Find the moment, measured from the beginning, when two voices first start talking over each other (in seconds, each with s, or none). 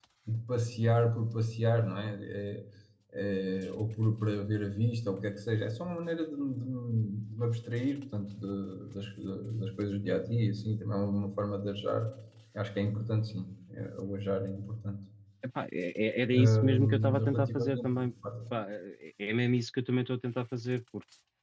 16.3 s